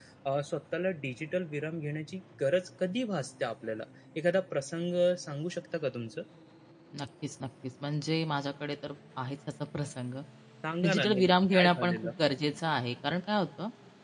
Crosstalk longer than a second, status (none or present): present